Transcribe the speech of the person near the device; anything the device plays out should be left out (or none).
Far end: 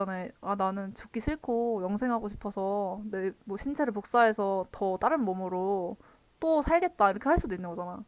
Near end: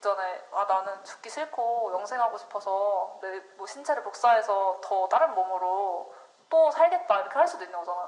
none